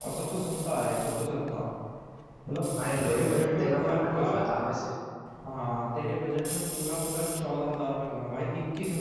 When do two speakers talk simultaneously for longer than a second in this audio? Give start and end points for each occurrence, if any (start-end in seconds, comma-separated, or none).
3.0-4.3